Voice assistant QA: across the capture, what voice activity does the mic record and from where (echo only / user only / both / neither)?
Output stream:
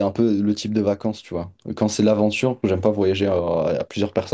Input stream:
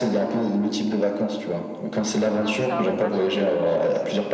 both